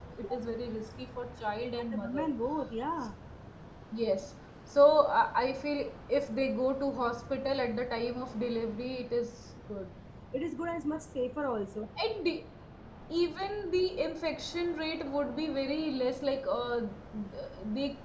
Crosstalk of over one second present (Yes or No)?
No